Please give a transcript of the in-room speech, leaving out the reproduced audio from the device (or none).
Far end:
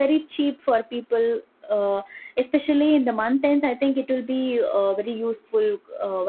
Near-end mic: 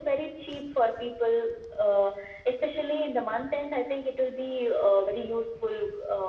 none